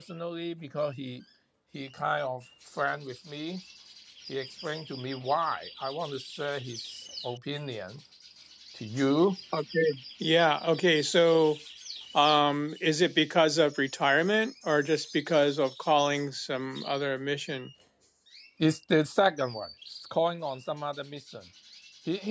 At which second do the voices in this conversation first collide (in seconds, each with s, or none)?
none